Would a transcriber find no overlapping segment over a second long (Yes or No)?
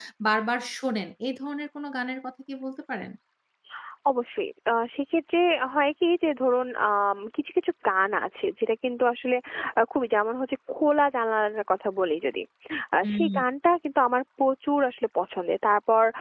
Yes